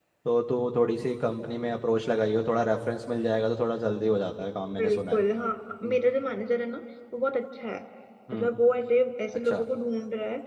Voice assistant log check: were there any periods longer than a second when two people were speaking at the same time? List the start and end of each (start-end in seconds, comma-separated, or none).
none